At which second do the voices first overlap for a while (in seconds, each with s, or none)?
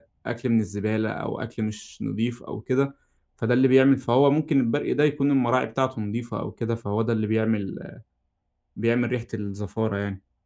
none